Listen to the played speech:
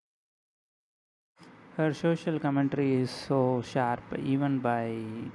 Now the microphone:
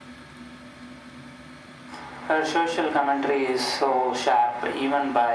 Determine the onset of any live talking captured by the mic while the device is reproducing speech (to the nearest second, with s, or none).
none